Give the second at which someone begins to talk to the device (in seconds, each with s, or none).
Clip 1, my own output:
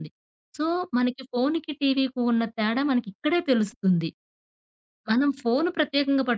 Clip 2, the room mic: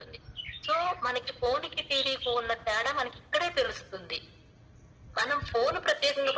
none